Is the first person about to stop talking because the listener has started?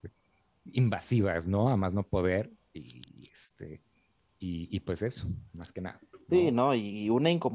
Yes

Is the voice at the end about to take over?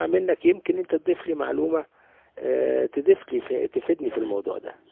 Yes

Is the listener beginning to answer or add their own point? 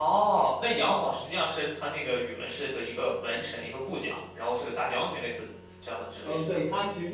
Yes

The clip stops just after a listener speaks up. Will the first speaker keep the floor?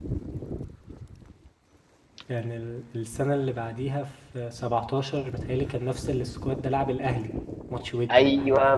No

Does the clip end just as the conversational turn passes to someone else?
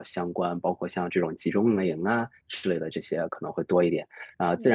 No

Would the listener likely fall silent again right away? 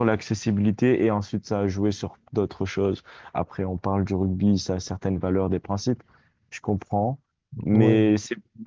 Yes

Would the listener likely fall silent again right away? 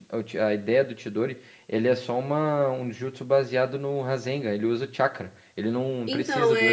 No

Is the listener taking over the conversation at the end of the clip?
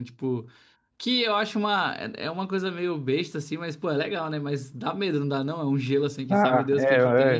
Yes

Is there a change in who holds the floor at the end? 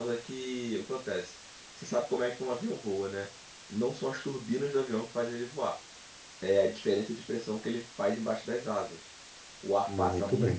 No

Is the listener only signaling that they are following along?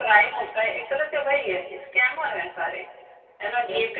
Yes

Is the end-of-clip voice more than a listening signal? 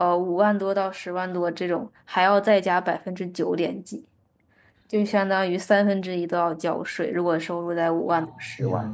Yes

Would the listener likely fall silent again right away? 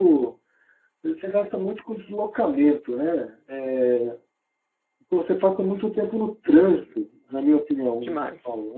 Yes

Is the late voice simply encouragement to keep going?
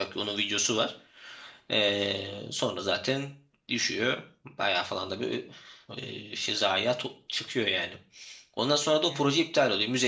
Yes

